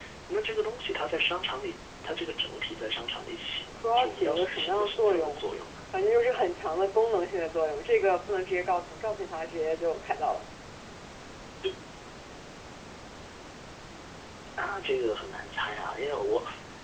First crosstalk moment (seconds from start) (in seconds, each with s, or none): 3.8 s